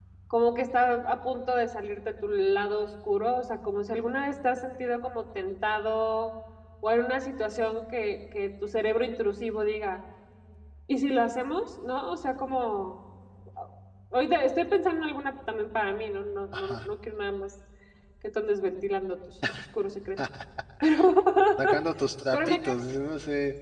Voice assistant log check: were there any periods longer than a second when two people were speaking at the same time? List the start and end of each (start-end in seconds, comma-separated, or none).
none